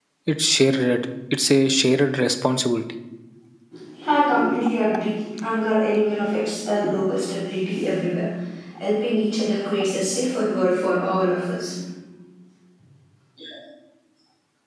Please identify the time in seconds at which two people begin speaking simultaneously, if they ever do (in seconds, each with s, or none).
none